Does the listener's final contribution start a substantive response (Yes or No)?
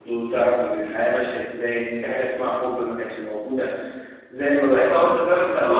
Yes